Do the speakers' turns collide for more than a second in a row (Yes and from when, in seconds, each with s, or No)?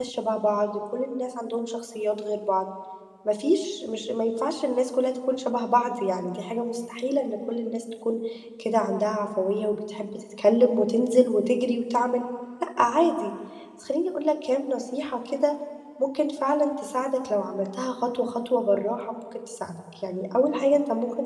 No